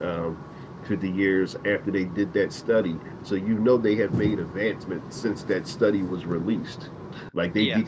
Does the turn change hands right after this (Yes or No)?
No